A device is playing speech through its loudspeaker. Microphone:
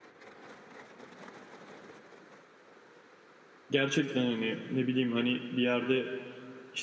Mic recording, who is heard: user only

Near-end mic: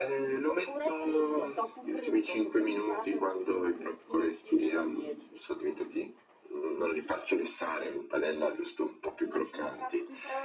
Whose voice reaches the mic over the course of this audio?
echo only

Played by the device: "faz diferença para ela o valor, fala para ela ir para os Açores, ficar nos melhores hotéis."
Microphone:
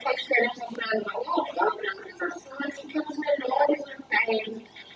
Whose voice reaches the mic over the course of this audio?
echo only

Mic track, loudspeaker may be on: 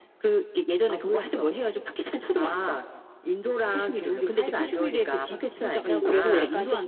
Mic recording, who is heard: both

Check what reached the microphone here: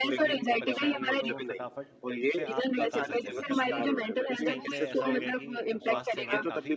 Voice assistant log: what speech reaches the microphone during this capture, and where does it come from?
both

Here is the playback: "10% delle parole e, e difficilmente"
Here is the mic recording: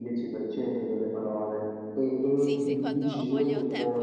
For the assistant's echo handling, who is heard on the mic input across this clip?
both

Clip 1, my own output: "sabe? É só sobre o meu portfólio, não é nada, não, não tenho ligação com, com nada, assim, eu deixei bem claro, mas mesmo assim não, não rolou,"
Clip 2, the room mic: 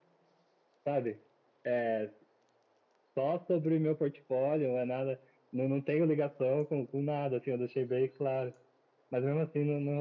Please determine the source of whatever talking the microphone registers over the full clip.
echo only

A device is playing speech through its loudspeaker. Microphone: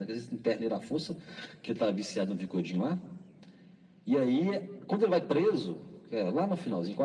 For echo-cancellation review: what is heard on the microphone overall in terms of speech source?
echo only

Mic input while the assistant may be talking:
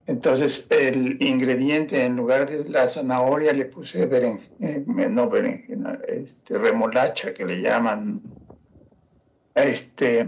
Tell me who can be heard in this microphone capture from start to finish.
echo only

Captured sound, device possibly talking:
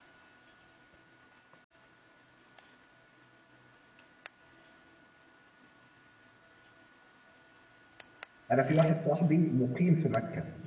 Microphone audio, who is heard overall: user only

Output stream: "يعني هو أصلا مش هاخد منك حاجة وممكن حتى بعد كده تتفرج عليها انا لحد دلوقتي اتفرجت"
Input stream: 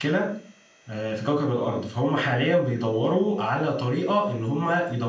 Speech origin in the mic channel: user only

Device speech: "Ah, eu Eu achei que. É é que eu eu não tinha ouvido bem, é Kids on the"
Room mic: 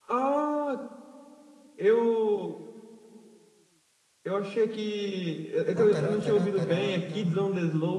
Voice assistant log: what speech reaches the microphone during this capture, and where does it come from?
both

